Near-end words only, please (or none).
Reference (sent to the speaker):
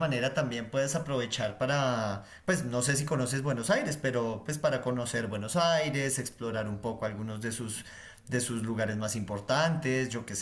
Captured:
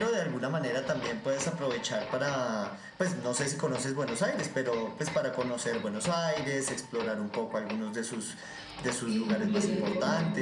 Es mucho tiempo.